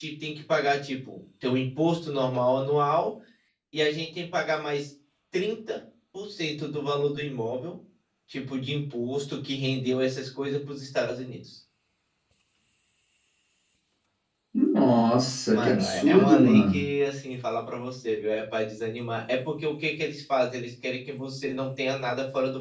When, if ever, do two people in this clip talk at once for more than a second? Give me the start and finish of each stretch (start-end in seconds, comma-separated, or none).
15.5-16.9